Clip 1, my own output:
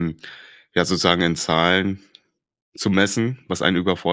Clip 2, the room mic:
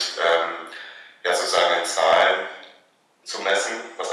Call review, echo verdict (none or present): present